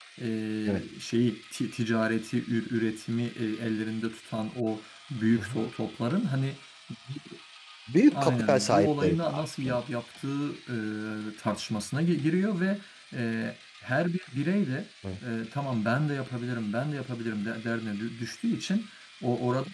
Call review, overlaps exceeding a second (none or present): present